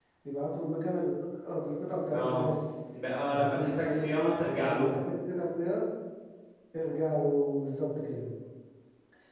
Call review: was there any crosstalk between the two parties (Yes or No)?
Yes